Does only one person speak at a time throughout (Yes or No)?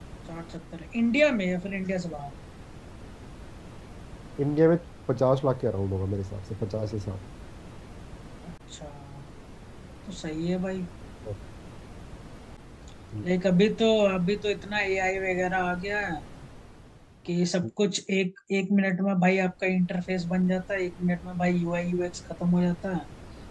Yes